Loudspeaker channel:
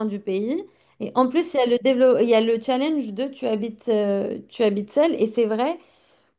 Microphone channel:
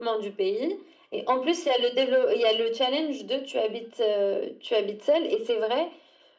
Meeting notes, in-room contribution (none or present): none